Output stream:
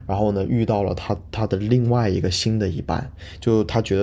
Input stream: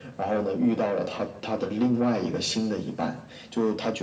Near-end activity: none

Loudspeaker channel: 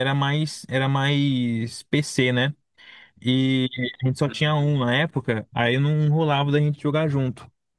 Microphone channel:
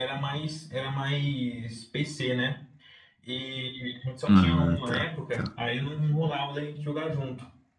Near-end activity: present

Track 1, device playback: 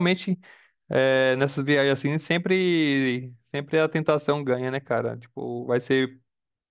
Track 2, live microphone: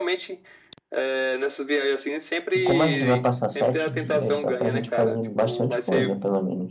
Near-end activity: present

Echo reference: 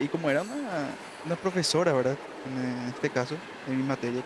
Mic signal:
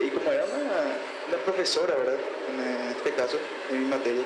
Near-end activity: none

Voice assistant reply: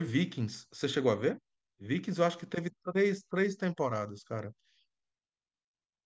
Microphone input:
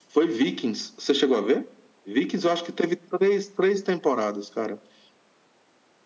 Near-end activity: none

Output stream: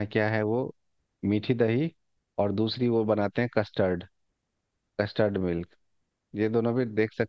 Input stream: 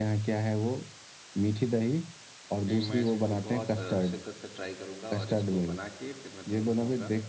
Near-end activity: present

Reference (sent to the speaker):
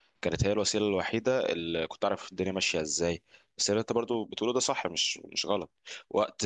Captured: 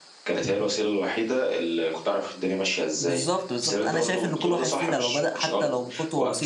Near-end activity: present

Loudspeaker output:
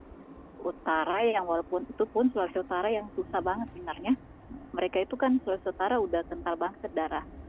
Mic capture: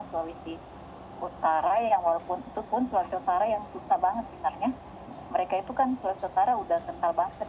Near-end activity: none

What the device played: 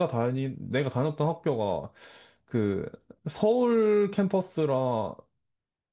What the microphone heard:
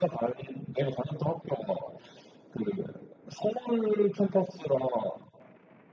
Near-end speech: none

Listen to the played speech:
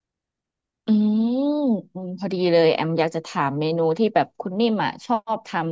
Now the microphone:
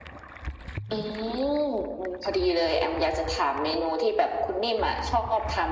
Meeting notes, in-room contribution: none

